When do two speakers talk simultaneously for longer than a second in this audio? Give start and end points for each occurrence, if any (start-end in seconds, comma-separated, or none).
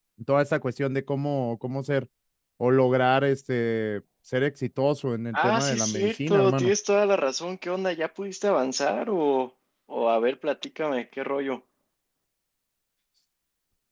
5.3-6.7